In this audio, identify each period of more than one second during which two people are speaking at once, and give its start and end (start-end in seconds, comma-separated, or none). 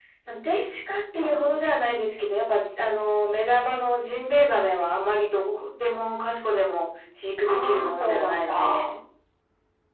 7.5-8.9